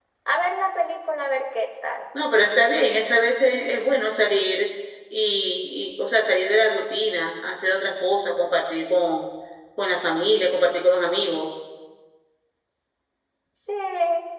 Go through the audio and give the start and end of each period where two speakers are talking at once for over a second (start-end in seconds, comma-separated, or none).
none